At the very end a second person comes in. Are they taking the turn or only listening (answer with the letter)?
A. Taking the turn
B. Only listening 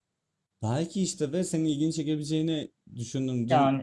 B